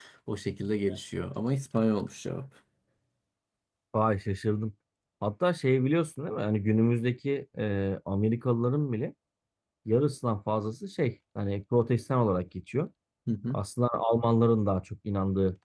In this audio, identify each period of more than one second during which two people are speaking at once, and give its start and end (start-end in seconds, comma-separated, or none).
none